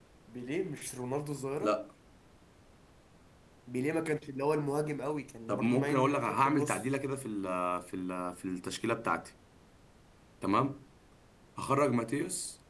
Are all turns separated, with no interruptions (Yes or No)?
No